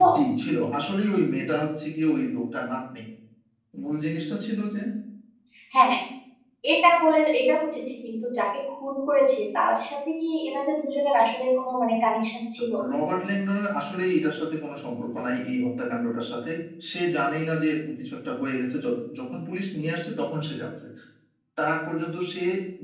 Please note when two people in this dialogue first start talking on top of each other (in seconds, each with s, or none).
none